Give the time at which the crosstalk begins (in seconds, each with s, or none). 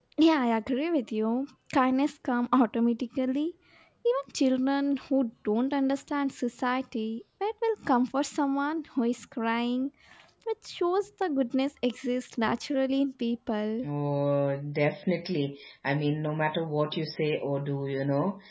none